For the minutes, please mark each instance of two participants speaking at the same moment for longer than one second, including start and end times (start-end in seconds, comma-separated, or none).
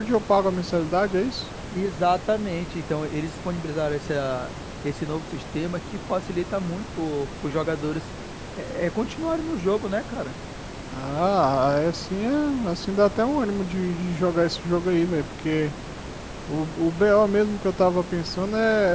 none